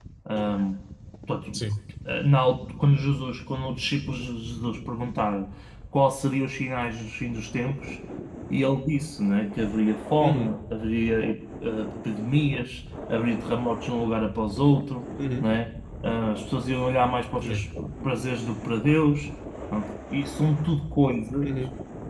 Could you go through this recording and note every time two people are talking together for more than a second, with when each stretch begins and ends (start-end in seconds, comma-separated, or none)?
none